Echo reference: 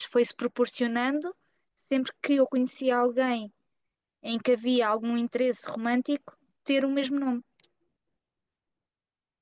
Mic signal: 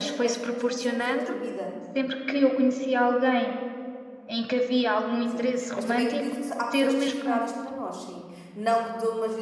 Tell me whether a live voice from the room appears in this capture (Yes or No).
Yes